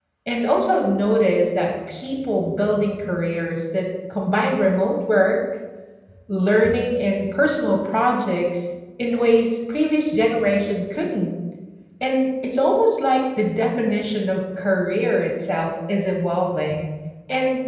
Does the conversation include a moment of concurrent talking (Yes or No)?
No